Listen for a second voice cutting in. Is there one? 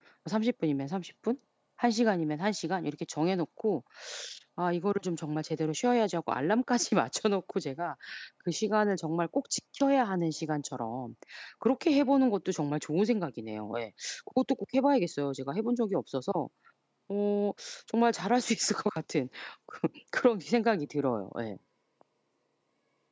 No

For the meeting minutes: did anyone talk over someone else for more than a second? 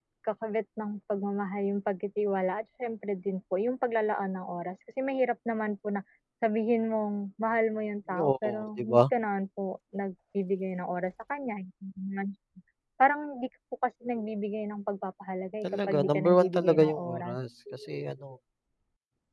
Yes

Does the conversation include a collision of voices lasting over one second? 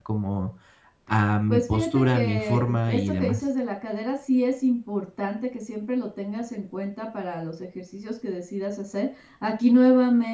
Yes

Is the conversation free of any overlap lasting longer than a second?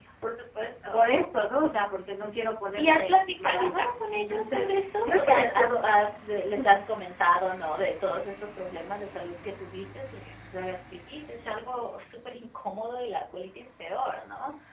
No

